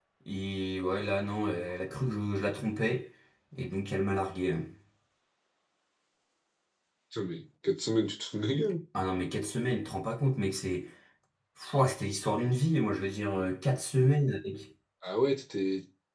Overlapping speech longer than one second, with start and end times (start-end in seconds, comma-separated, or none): none